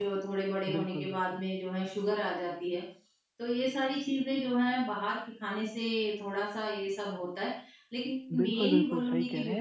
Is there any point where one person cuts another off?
Yes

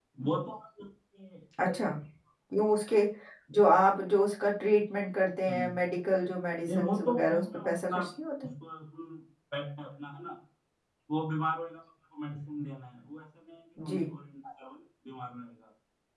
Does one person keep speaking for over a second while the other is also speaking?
Yes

